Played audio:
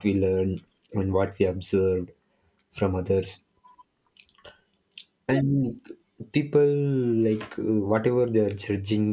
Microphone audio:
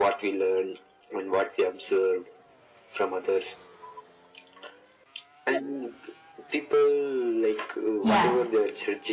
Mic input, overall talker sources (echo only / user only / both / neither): both